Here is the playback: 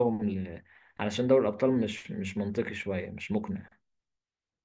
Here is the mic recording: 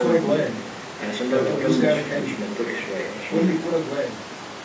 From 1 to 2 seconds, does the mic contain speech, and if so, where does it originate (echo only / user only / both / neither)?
both